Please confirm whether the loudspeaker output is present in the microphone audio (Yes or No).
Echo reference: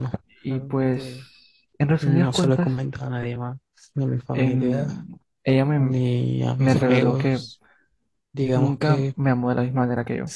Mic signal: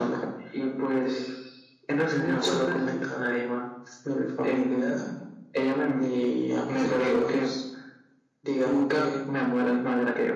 Yes